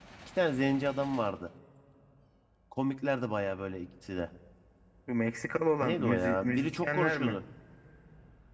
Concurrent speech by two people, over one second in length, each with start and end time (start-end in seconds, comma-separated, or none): 5.8-7.4